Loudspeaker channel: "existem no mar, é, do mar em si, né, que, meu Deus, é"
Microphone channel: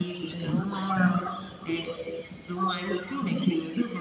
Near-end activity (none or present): present